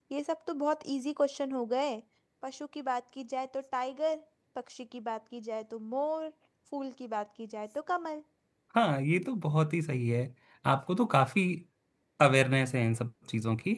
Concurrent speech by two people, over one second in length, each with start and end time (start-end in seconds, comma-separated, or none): none